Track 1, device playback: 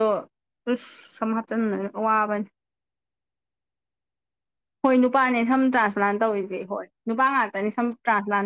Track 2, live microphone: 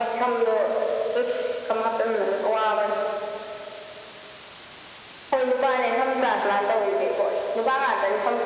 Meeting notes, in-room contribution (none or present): none